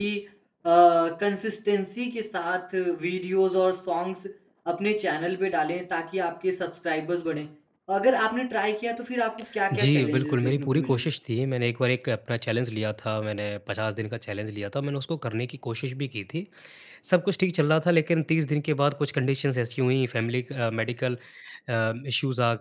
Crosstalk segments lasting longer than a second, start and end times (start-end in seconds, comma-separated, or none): 9.7-11.0